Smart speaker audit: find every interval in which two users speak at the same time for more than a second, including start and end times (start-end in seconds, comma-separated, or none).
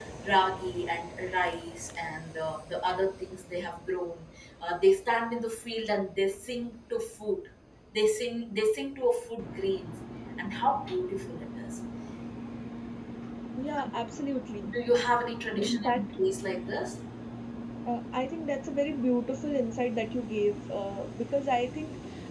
none